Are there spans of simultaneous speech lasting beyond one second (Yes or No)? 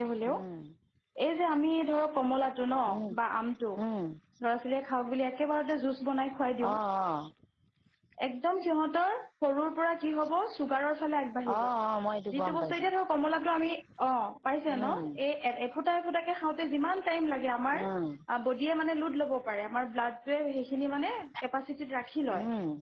No